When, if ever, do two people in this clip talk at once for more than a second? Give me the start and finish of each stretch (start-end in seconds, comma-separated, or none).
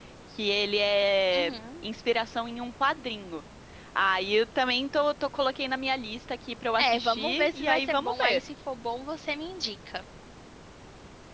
6.8-8.4